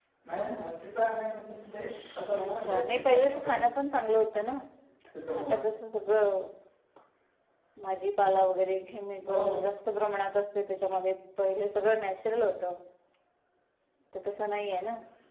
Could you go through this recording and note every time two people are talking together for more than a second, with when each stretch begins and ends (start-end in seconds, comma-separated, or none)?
2.3-3.6